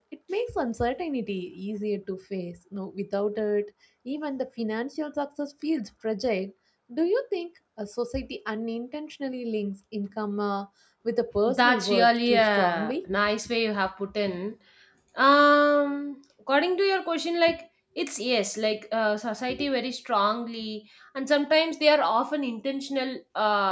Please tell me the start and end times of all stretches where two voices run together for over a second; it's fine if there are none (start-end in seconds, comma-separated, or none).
11.4-12.9